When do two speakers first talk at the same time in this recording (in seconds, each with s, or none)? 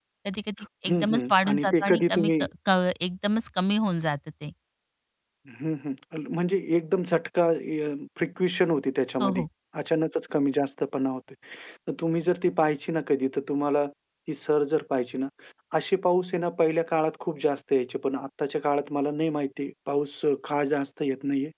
0.9 s